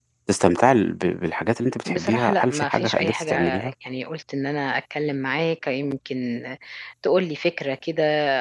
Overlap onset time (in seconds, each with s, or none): 1.9 s